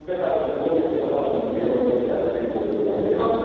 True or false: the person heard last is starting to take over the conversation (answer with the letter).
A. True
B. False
A